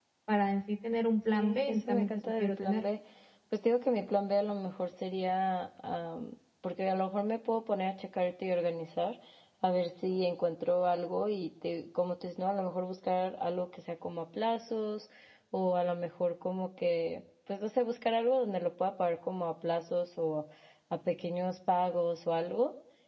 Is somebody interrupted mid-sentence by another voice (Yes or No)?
Yes